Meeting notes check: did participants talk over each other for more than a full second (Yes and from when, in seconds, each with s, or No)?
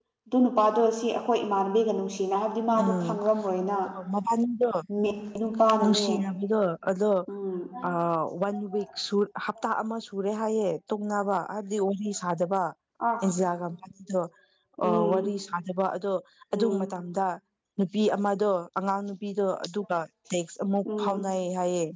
No